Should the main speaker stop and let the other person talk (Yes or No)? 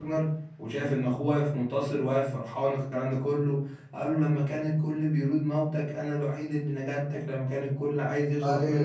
No